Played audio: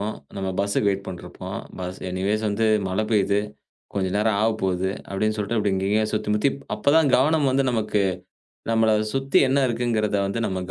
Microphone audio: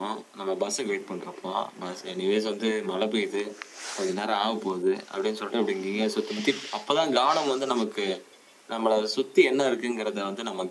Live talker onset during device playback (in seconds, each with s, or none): none